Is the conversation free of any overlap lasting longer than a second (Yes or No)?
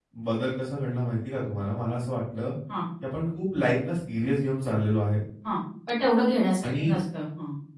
Yes